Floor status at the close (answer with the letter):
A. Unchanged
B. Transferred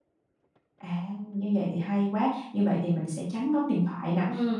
A